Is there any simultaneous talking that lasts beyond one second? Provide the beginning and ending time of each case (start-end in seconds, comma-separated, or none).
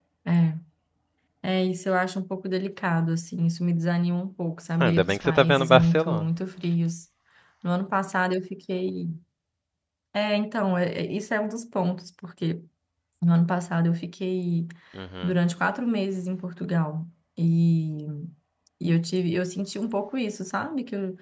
4.8-6.2